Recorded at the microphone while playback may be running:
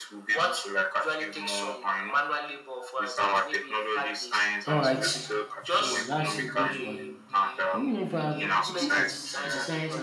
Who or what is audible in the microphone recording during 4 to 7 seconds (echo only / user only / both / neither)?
both